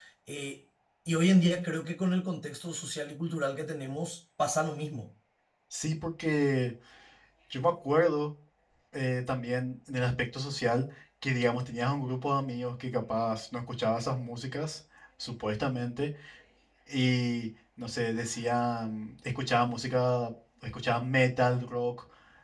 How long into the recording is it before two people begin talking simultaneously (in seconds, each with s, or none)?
none